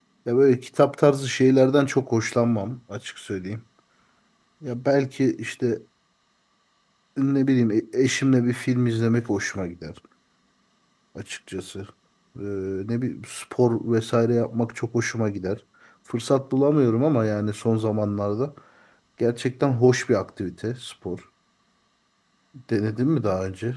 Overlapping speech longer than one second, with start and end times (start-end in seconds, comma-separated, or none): none